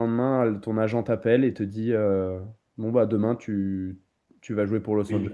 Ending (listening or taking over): taking over